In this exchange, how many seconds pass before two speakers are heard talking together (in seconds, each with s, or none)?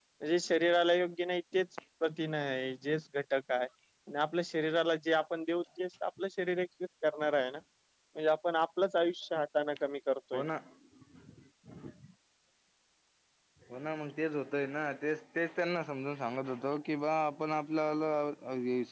none